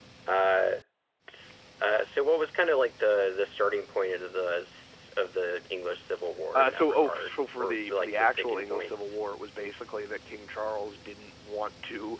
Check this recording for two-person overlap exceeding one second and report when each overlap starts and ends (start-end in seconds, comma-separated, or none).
6.5-9.2